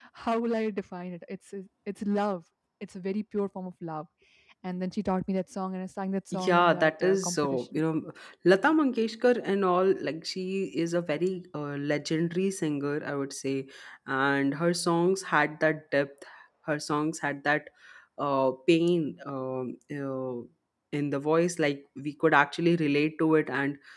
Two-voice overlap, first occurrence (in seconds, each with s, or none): 6.3 s